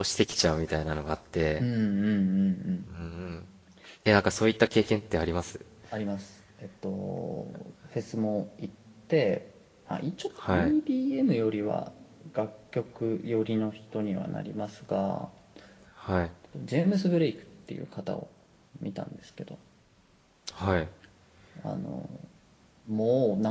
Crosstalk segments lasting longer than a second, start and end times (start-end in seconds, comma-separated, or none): none